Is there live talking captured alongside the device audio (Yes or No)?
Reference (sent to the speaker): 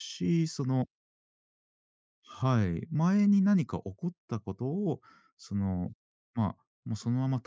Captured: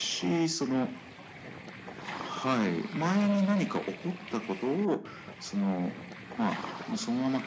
No